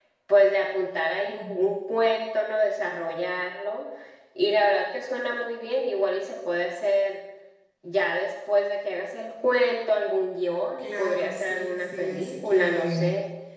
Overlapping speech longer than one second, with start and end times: 10.8-13.0

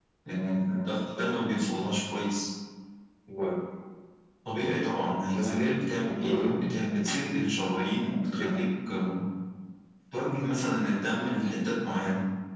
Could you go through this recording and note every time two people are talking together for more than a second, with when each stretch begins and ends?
5.3-6.7

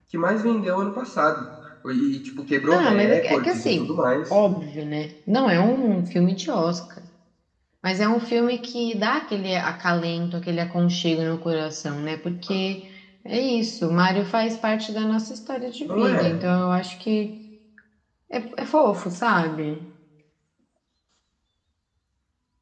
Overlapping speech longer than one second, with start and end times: 2.7-3.9

